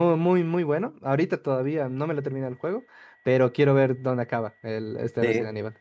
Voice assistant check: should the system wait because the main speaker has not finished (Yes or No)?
No